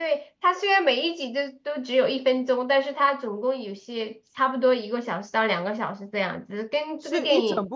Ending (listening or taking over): taking over